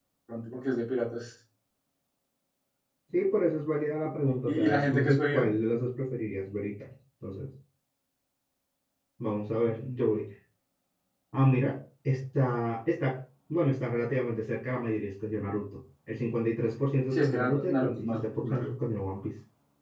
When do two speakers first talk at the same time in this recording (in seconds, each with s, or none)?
4.2 s